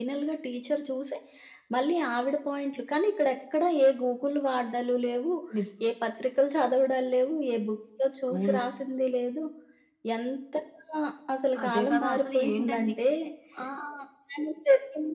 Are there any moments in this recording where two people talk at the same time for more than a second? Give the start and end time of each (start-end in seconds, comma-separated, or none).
11.6-12.9